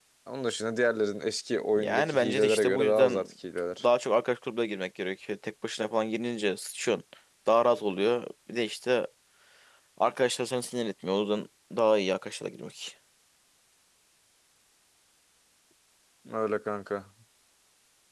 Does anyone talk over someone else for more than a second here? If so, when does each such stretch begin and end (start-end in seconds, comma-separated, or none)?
1.8-3.3